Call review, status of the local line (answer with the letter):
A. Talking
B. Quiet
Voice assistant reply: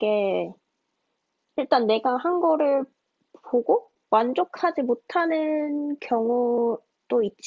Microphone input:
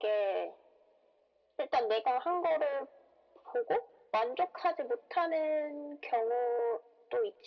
B